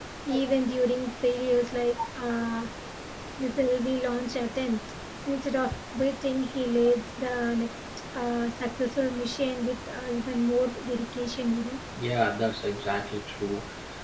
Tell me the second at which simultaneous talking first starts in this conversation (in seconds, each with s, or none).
none